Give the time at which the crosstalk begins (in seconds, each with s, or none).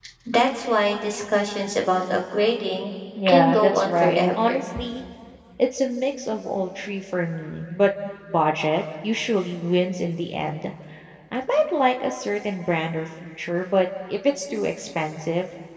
3.2 s